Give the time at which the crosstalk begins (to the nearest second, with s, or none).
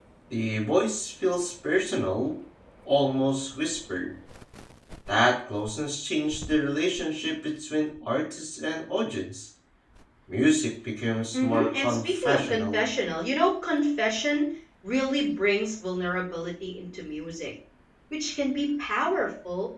11 s